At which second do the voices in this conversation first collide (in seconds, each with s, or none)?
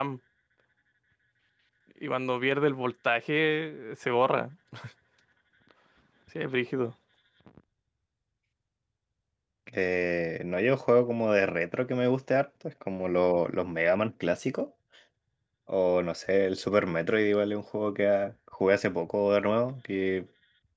none